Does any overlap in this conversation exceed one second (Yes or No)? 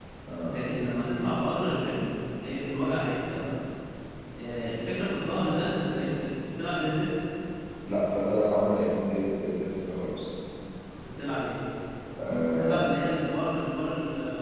No